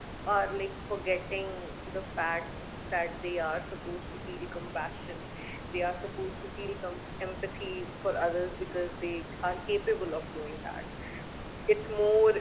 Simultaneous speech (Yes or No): No